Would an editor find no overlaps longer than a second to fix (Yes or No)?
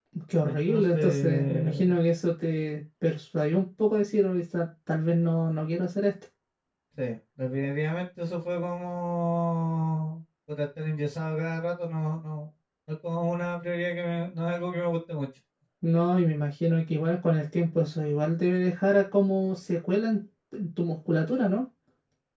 No